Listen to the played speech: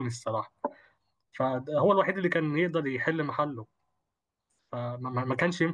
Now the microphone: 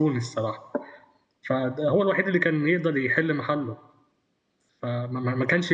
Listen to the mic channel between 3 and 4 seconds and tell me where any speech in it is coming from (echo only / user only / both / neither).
echo only